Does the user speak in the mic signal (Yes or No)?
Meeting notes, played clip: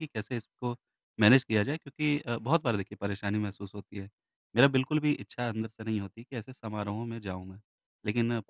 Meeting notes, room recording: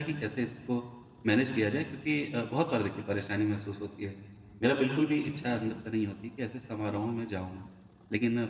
No